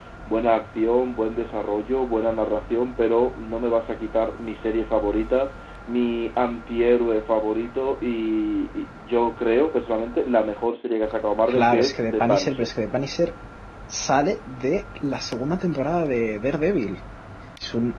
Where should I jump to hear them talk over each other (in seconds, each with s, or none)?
11.5 s